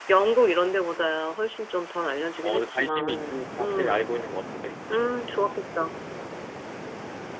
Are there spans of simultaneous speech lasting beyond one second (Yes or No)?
Yes